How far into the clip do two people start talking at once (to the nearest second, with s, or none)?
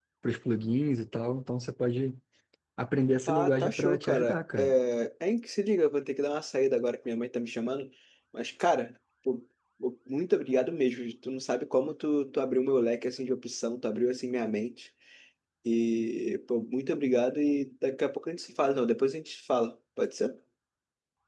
3 s